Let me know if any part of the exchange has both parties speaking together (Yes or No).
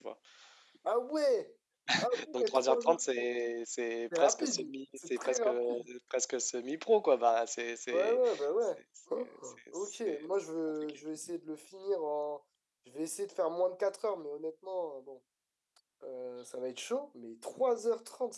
Yes